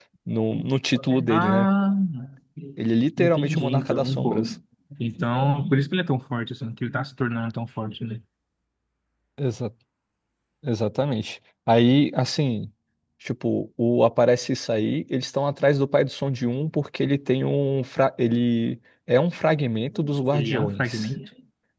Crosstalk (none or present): present